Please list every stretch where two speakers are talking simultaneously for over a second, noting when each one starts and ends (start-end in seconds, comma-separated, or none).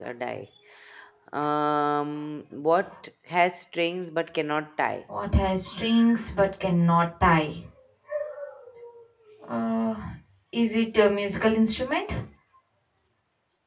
none